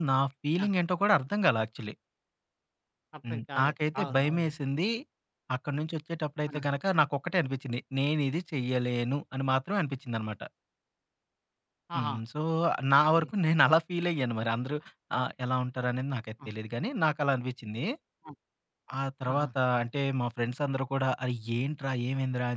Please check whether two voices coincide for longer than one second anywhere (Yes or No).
Yes